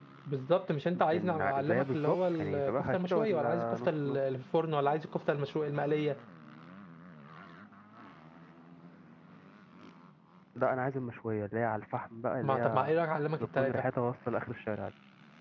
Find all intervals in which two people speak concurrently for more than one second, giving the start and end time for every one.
0.9-4.2

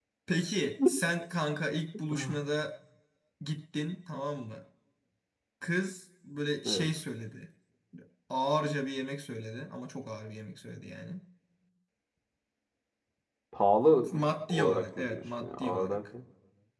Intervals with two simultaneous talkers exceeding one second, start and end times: 14.5-16.0

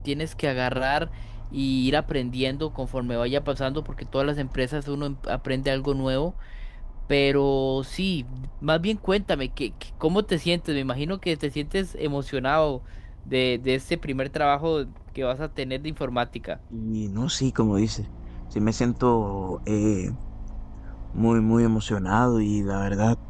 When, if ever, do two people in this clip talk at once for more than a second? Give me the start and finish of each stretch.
none

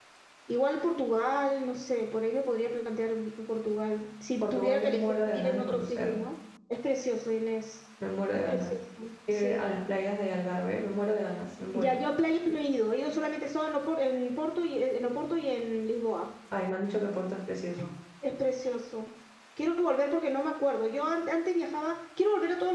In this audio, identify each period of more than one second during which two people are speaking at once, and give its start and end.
4.4-6.2

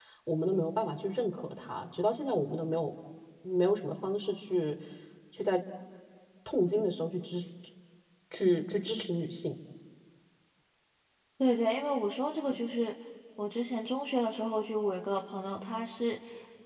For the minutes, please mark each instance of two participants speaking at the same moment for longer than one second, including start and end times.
none

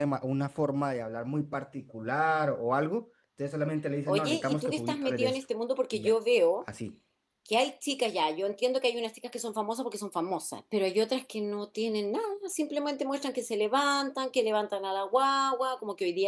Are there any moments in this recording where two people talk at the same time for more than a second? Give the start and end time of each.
4.1-5.4

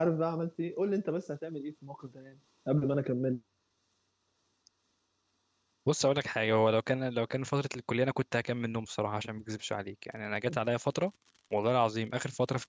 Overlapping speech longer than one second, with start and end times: none

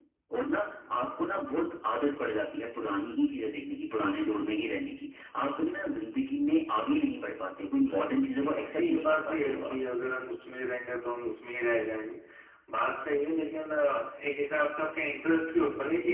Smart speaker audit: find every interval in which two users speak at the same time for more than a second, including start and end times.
8.4-9.8

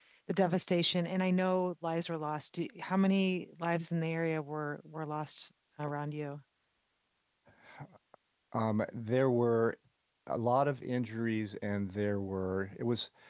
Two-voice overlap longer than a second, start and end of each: none

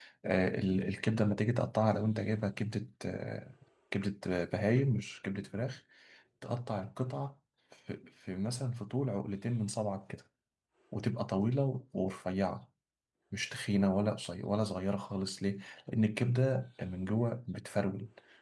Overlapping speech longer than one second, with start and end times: none

